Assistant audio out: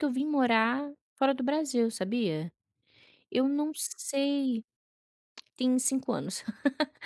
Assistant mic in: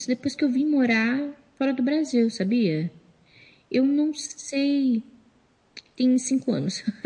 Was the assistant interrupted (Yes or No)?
No